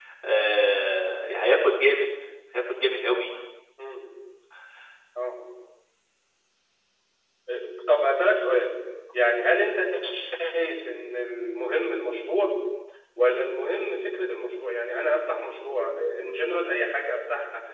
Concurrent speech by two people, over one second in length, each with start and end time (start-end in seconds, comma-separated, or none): none